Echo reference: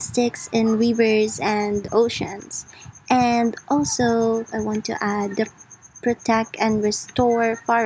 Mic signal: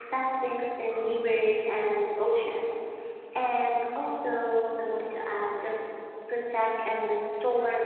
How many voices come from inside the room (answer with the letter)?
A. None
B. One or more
A